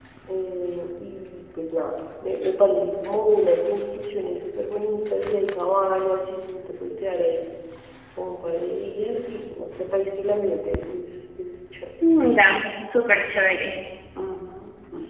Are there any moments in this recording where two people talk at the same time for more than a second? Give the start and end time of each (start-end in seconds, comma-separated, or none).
none